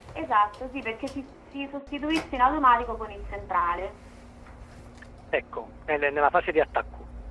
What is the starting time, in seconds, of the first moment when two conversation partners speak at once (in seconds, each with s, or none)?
none